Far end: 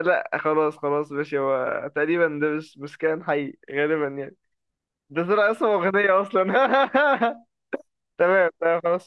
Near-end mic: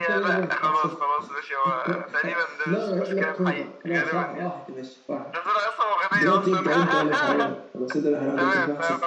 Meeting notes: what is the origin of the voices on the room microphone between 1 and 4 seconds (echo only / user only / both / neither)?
both